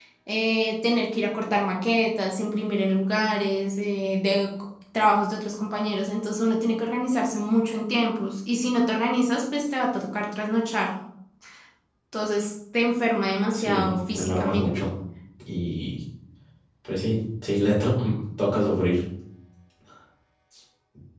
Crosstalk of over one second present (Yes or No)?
Yes